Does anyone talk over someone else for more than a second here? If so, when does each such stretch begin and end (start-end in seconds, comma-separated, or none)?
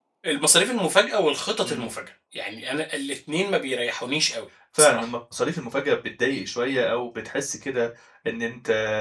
none